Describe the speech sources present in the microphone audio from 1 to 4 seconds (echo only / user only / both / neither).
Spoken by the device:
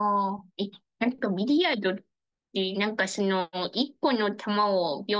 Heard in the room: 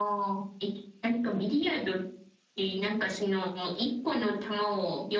echo only